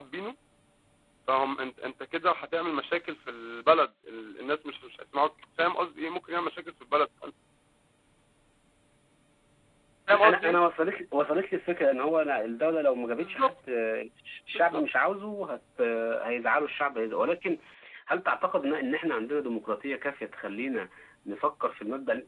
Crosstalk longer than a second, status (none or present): none